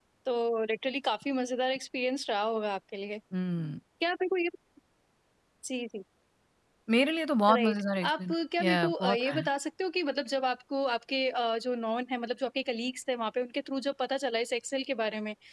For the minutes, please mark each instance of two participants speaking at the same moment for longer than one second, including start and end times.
7.5-9.5

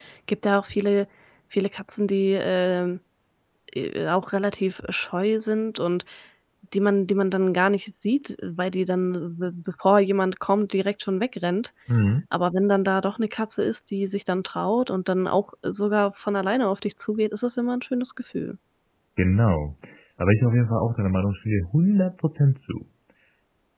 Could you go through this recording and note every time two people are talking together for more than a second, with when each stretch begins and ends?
none

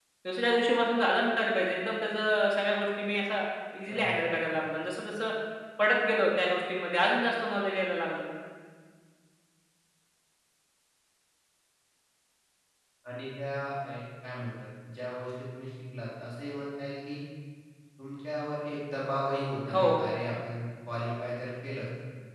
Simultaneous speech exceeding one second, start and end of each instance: none

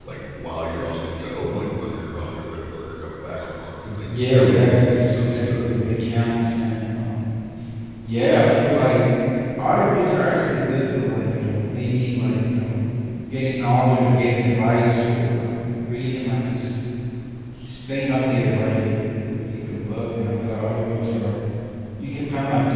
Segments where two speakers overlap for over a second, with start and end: 4.0-5.8

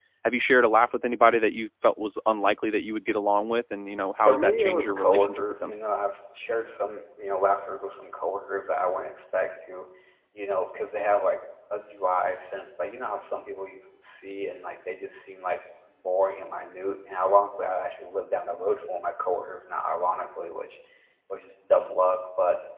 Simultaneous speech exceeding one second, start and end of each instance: 4.2-5.7

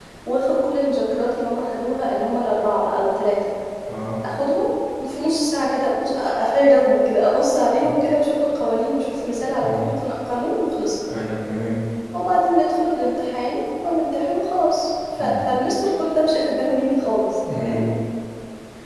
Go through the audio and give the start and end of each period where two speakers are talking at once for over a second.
none

